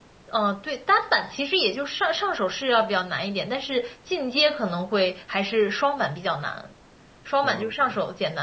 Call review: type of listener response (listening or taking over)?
listening